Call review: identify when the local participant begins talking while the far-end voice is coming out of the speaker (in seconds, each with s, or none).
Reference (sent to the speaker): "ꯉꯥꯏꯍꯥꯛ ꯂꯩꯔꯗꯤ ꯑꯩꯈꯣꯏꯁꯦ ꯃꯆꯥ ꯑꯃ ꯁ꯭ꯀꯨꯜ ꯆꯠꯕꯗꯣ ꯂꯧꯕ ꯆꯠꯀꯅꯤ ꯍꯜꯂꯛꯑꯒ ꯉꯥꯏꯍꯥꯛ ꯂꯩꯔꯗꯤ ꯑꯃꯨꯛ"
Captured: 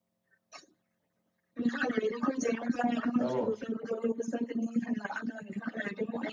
3.1 s